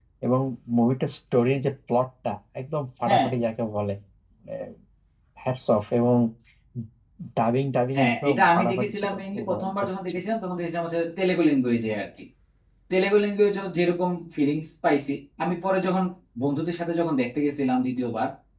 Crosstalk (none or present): present